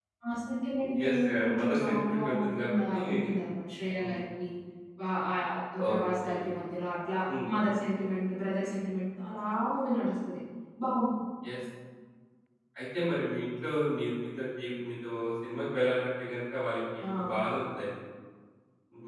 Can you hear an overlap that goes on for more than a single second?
Yes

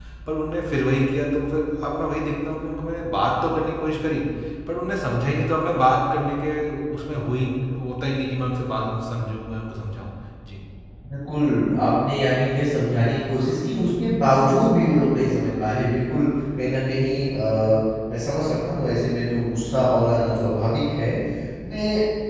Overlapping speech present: No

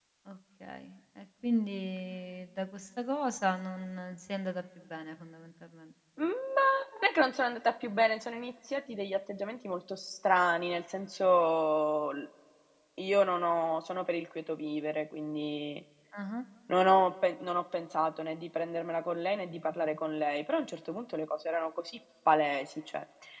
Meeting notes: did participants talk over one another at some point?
No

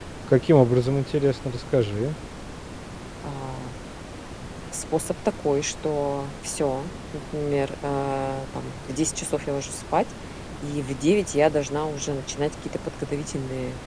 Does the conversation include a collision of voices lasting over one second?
No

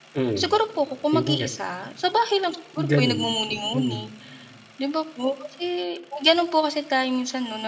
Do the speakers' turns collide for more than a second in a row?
No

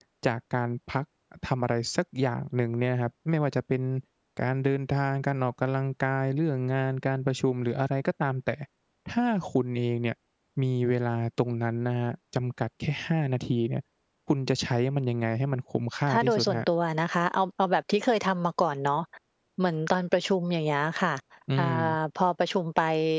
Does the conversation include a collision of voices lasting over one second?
No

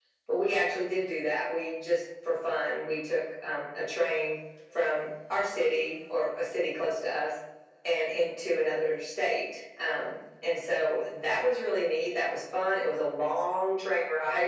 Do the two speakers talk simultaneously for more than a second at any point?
No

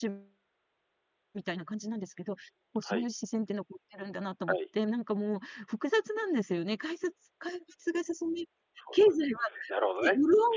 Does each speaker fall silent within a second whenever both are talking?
Yes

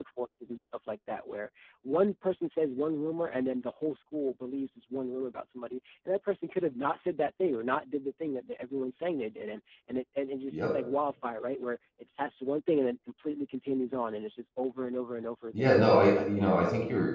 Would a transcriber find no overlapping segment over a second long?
No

